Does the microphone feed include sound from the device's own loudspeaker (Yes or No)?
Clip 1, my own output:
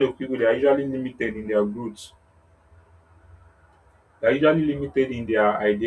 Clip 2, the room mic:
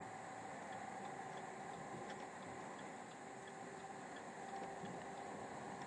No